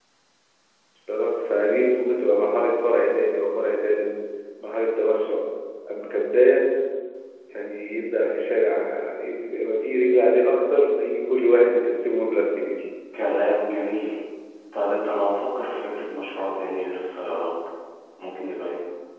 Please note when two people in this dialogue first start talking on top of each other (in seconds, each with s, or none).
none